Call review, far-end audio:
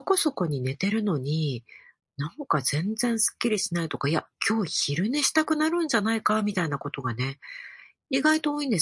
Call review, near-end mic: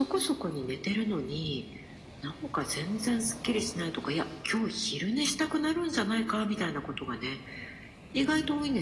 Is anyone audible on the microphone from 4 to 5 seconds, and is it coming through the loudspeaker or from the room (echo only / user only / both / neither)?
echo only